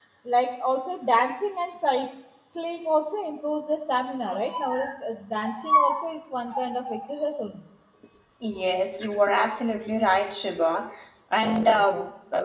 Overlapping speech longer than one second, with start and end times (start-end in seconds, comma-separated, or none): none